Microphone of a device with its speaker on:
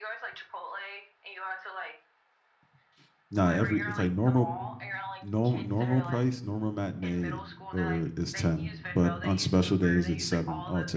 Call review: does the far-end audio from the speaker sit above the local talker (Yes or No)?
No